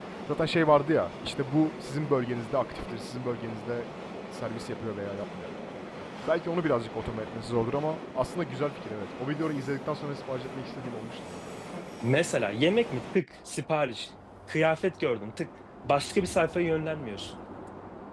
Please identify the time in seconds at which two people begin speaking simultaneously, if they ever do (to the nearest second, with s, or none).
none